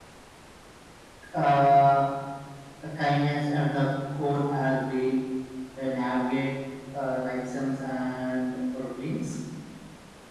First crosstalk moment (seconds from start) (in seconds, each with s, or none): none